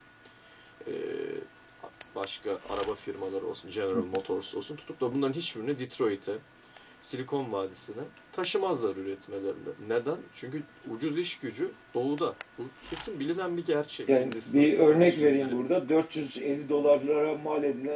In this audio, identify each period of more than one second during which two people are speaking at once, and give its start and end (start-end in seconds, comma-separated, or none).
14.2-15.6